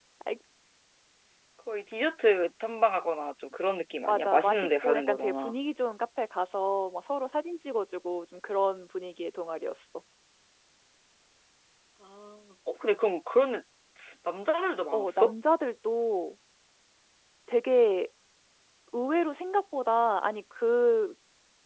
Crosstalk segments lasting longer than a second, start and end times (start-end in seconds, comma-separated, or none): 4.1-5.5